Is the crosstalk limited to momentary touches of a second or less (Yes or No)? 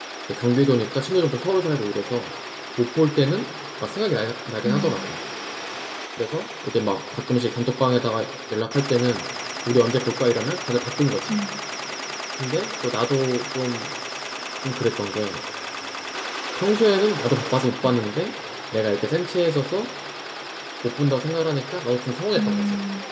Yes